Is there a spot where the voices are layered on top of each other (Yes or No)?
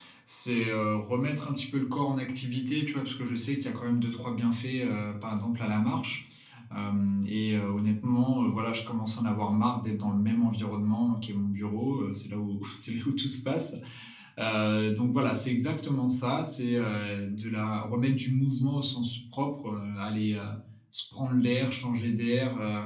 No